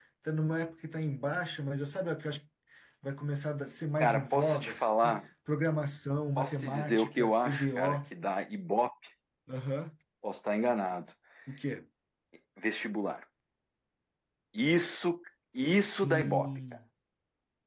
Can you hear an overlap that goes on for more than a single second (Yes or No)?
Yes